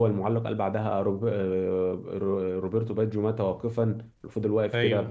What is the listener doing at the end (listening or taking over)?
listening